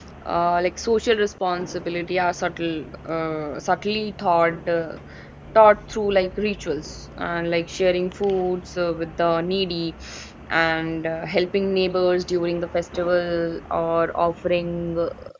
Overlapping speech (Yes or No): No